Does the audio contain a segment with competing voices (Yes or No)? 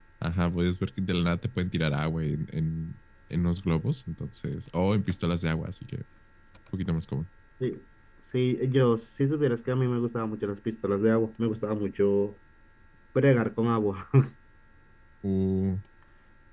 No